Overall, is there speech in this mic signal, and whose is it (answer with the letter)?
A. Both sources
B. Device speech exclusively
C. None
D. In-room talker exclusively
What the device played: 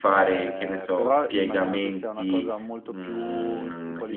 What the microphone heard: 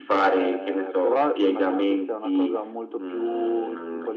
B